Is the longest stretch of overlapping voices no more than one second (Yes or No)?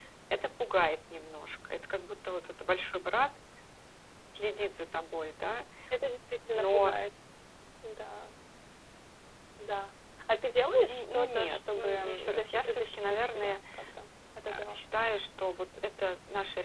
No